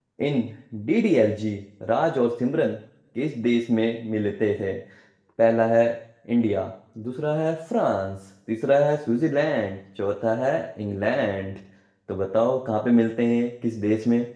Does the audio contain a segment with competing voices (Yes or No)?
No